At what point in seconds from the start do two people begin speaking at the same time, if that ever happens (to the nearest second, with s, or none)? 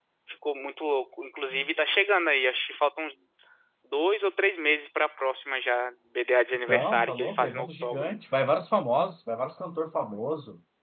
7 s